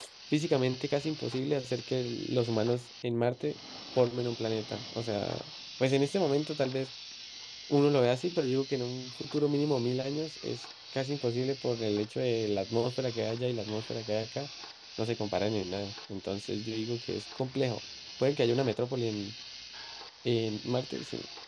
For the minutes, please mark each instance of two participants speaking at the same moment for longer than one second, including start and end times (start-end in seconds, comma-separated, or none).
none